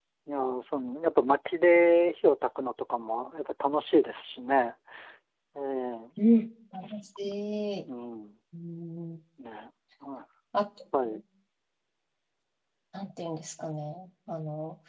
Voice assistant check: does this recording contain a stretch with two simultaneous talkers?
No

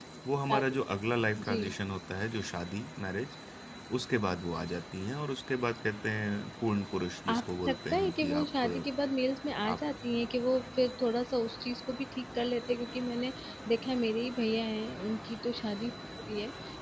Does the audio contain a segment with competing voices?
Yes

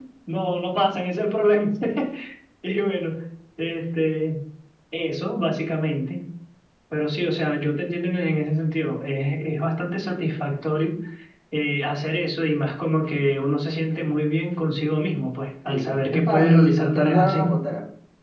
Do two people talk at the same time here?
Yes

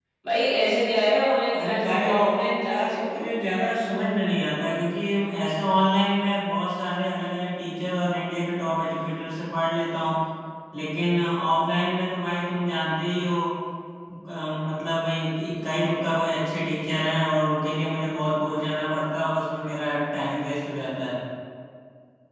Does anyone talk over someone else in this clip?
Yes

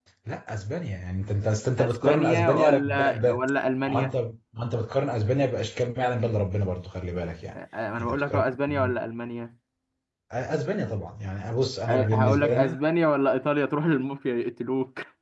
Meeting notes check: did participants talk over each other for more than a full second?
Yes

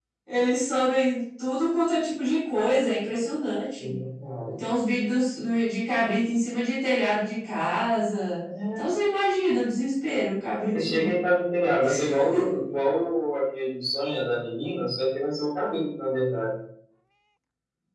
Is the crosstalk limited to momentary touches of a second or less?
Yes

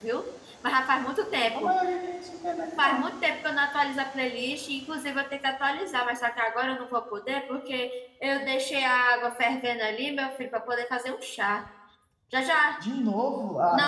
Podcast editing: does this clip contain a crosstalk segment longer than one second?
No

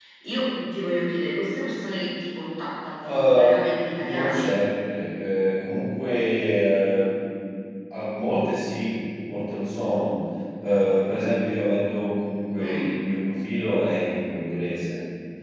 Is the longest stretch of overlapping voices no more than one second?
No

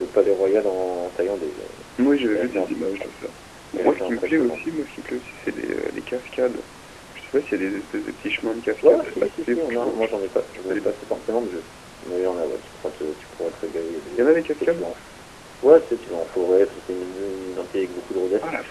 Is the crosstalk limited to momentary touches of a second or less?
No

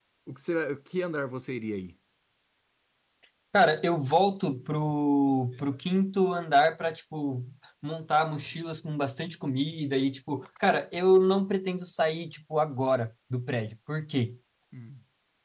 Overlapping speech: No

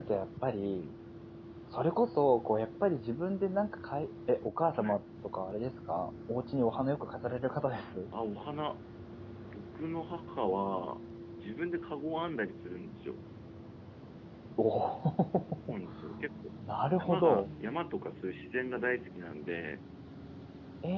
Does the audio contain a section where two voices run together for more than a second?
No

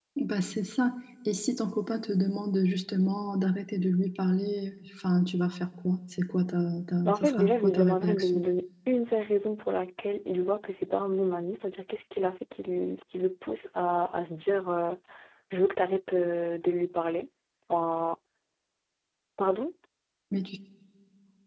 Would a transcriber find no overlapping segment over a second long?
No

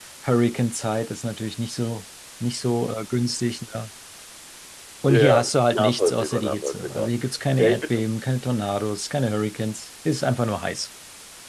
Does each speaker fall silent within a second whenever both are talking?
No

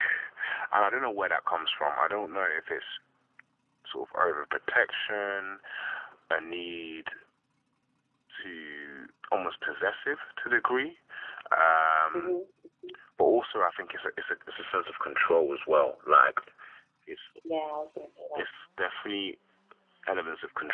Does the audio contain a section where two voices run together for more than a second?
No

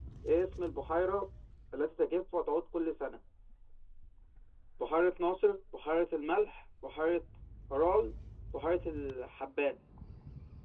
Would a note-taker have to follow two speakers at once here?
No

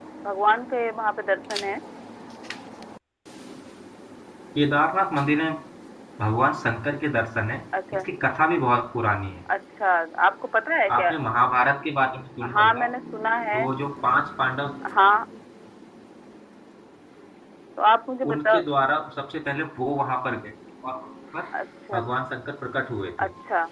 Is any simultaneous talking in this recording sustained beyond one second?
No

